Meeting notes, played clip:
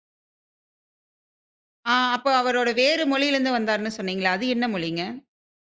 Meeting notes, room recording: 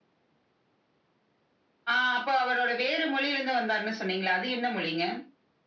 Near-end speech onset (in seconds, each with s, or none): none